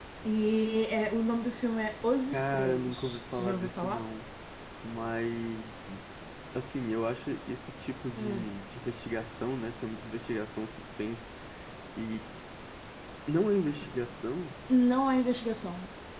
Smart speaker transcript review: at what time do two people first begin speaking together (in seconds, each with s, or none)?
2.3 s